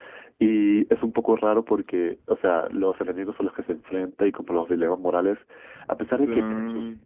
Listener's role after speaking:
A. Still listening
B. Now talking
A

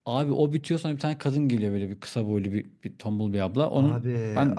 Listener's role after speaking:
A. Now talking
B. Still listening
A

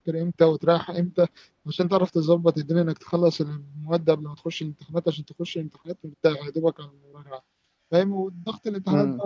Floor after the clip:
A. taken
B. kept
B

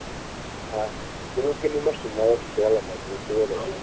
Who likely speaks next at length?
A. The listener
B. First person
A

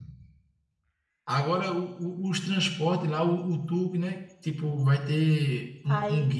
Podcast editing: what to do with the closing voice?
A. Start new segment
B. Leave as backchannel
A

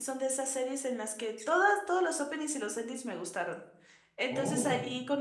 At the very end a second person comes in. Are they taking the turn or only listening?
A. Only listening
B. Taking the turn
A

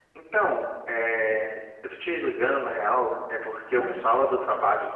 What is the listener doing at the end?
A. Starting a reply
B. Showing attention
B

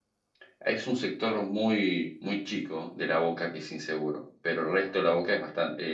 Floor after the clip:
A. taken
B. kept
B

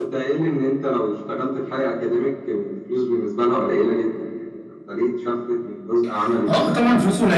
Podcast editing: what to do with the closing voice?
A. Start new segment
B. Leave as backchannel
A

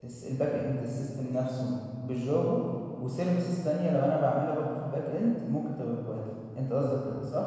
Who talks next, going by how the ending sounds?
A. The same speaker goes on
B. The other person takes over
B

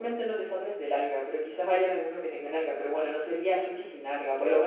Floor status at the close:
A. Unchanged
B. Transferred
A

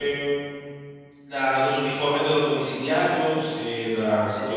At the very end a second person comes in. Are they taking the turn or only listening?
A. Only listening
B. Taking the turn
A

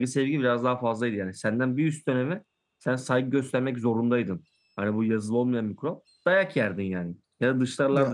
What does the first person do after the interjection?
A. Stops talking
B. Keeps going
B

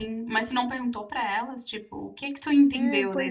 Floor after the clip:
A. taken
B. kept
A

